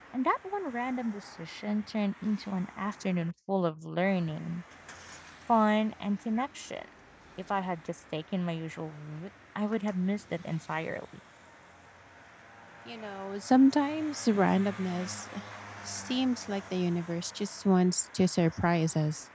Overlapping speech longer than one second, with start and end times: none

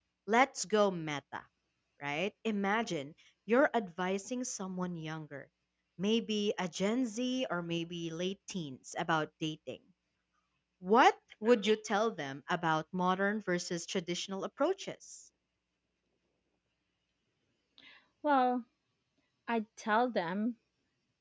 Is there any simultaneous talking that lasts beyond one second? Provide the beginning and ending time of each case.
none

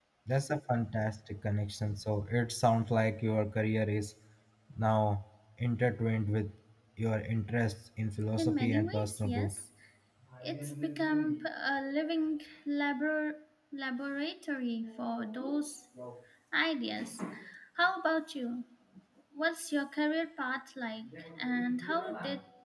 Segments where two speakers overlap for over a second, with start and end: 8.3-9.6

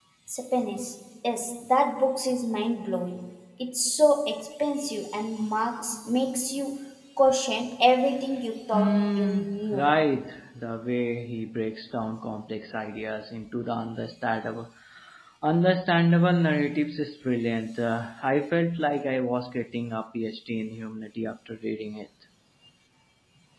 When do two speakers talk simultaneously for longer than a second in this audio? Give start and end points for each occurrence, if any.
8.7-9.9

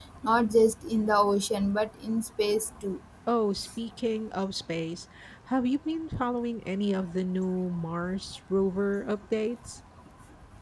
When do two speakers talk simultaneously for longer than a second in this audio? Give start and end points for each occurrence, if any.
none

